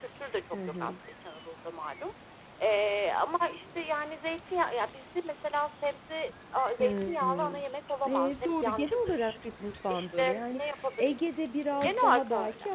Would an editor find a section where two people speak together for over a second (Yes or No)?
Yes